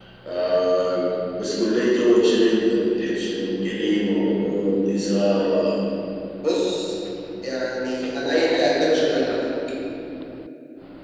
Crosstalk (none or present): none